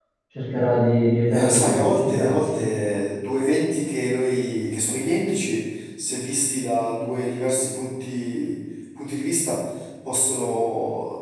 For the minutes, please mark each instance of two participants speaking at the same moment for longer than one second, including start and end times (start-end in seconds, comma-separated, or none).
1.3-2.7